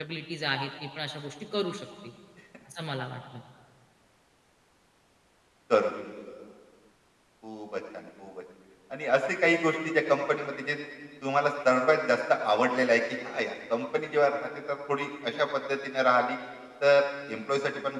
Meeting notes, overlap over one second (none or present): none